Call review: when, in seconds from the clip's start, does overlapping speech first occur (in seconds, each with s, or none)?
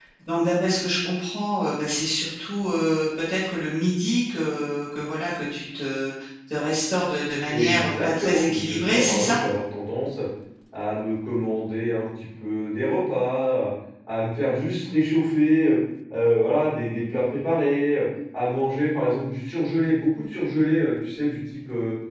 7.5 s